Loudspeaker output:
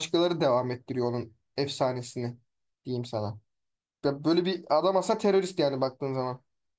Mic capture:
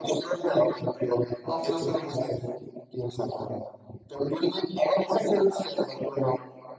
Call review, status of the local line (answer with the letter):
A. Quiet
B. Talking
B